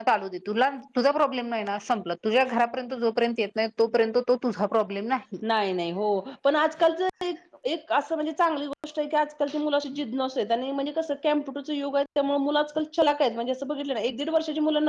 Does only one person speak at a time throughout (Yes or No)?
Yes